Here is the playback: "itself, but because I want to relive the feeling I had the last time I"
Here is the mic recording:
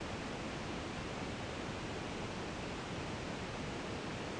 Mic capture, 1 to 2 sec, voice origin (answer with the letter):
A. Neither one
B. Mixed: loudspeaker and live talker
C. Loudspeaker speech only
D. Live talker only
A